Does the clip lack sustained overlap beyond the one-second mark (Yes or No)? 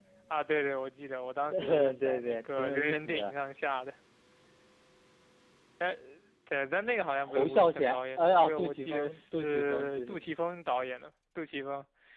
No